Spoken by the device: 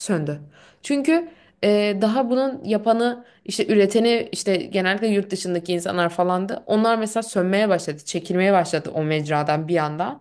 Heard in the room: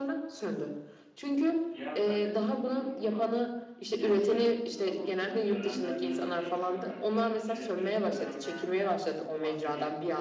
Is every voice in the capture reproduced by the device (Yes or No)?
No